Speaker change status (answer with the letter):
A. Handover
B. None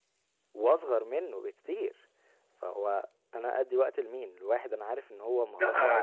A